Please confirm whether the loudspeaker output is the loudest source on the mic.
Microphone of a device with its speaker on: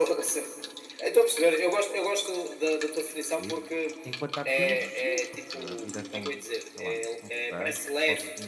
Yes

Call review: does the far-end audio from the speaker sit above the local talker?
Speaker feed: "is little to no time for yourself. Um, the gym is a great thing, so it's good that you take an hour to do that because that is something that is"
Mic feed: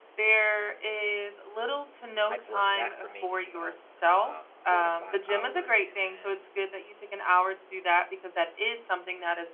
Yes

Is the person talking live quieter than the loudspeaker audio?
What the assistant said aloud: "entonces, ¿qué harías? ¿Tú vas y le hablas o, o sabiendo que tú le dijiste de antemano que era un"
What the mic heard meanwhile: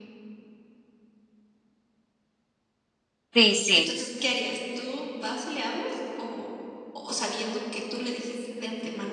No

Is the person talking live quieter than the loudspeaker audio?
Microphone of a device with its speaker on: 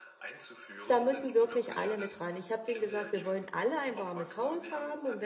No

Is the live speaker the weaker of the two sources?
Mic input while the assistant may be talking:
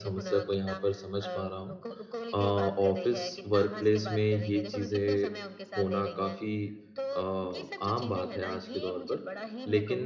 No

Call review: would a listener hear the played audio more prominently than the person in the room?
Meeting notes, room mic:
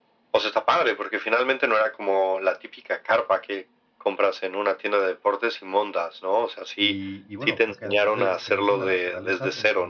Yes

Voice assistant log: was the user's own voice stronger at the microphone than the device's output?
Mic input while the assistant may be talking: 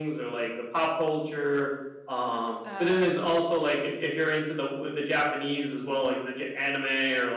No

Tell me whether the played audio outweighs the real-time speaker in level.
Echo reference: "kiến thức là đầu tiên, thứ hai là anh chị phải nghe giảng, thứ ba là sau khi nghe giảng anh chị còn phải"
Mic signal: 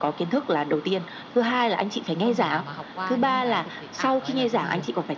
Yes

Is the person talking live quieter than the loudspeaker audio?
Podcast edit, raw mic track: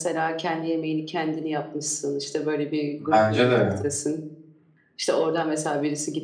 No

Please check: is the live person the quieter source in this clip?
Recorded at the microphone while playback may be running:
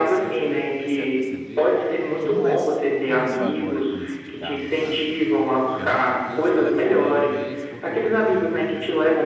Yes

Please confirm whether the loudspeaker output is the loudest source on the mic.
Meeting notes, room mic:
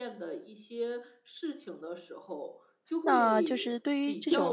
No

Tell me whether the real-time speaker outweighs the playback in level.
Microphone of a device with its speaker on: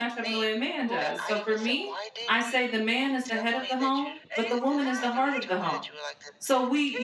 Yes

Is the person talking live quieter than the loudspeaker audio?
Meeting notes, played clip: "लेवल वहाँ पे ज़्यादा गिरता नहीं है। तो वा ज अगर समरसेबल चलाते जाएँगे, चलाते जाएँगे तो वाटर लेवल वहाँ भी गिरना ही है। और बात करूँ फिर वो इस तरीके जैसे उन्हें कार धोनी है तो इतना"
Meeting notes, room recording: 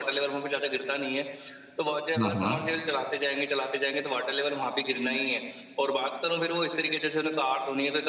No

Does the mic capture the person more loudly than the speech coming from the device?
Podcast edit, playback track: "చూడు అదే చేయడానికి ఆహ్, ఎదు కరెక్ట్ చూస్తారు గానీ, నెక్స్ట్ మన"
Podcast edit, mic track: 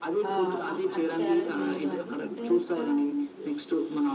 No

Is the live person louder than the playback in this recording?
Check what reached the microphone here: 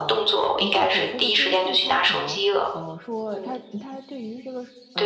No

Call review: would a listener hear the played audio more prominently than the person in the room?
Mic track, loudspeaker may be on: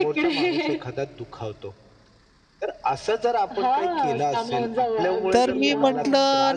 No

